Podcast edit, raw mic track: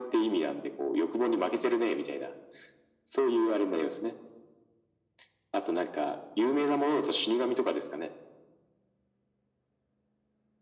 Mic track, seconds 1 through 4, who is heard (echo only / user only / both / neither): echo only